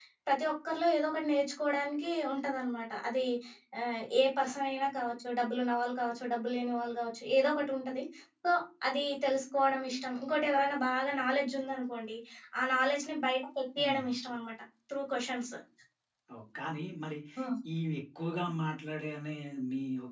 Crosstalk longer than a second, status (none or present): none